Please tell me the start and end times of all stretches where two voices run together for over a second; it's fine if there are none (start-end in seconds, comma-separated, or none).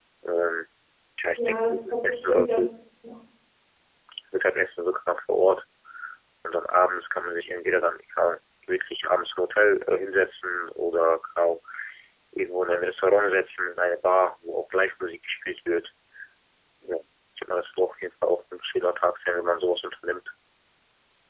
1.4-2.7